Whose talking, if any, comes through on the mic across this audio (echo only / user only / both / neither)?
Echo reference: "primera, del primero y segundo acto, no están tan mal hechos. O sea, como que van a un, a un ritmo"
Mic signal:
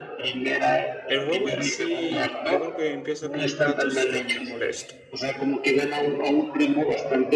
both